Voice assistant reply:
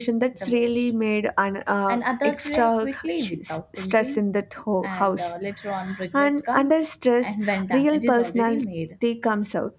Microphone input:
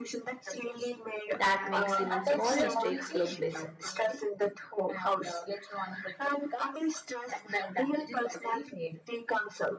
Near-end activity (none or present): present